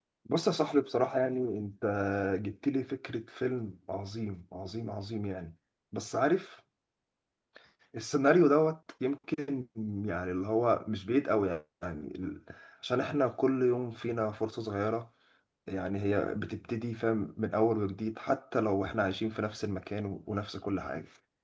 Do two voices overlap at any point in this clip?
No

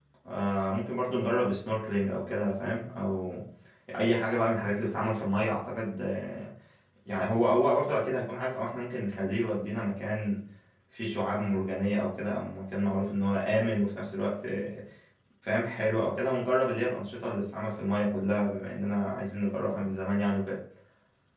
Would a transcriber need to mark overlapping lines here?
No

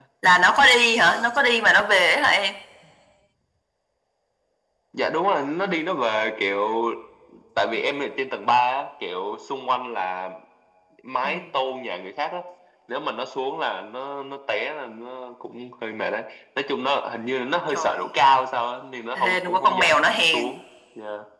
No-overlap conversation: No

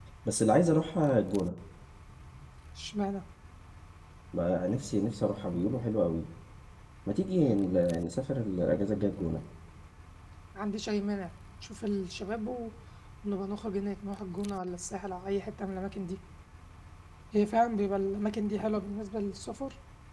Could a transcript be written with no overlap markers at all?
Yes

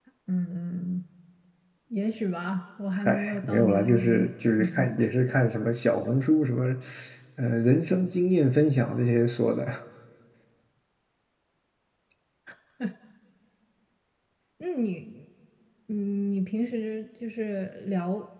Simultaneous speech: Yes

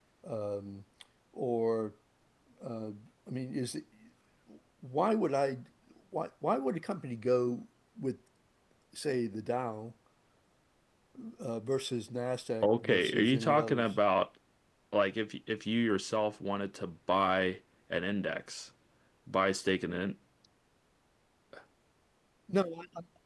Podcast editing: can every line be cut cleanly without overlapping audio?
No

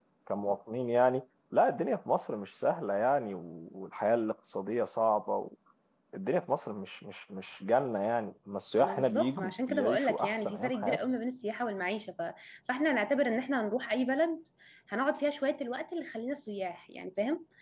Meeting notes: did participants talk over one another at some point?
Yes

